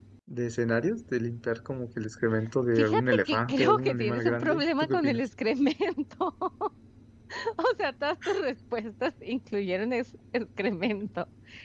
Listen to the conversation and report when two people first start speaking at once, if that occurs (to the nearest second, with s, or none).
3 s